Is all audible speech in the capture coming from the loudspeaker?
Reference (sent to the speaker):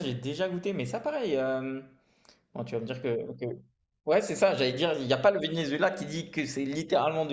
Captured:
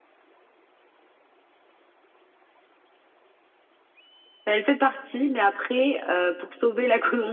No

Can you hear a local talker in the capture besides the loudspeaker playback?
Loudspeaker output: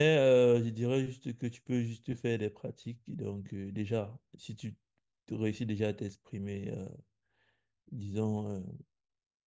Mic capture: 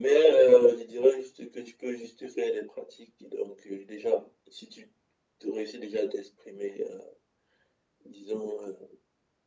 No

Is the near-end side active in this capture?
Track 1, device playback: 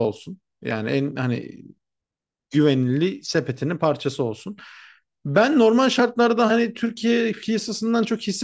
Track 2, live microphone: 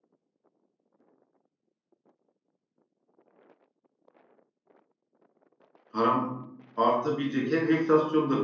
Yes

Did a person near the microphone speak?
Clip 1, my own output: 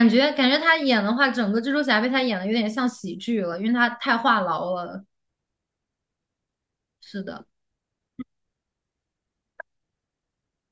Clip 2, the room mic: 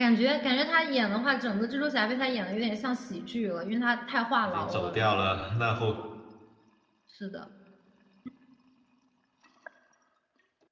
Yes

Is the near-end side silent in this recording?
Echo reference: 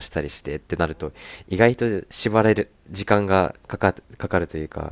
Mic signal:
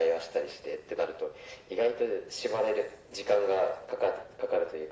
Yes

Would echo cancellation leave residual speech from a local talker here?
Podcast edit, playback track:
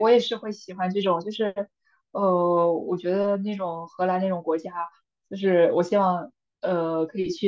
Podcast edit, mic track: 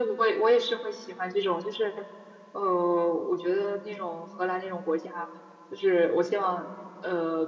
No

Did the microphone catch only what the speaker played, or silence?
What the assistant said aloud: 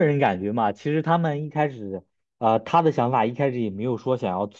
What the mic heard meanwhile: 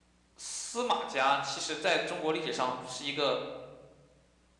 No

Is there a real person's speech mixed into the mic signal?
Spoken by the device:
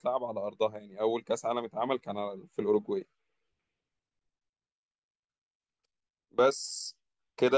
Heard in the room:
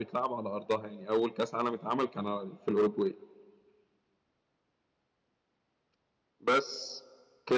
No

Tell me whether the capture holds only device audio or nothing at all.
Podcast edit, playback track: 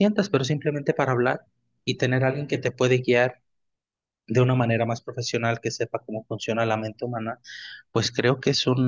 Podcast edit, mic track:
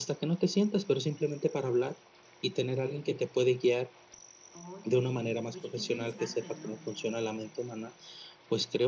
No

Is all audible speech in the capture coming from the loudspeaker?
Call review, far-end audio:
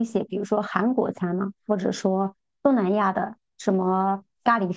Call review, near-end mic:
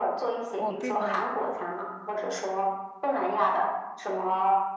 No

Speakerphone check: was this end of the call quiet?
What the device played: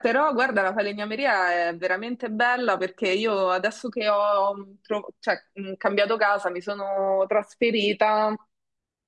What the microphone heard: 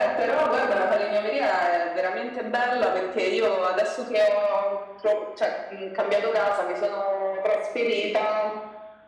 Yes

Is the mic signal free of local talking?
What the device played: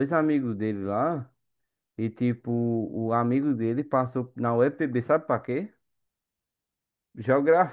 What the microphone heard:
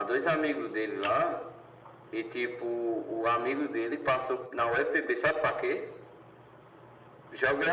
Yes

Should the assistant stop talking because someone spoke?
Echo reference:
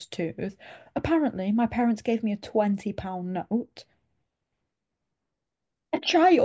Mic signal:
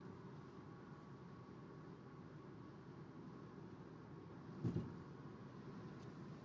No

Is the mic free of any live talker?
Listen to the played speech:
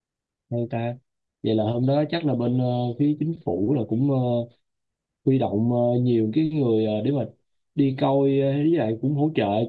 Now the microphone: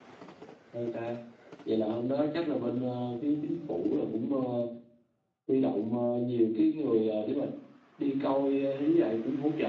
Yes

